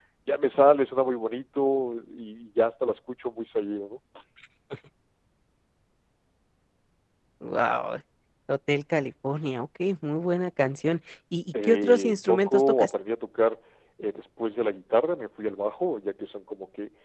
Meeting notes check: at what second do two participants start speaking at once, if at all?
12 s

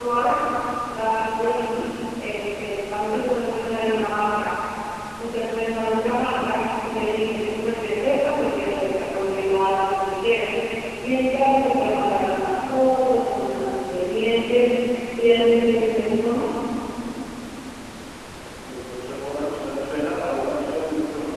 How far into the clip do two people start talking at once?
none

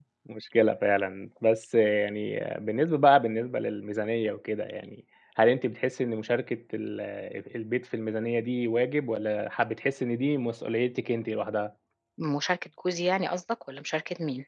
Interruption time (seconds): none

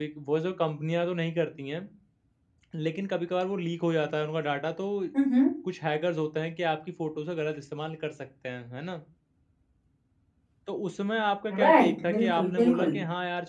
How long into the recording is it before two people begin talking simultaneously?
12 s

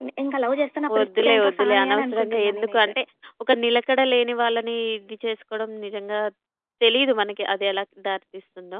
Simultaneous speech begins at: 1 s

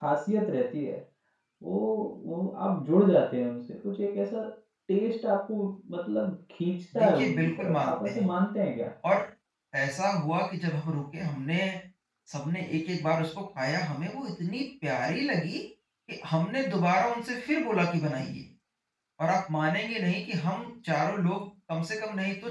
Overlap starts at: 7 s

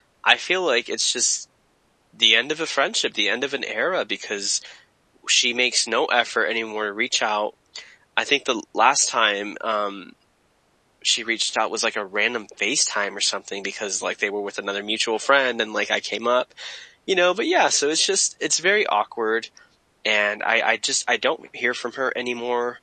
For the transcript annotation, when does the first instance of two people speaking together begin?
none

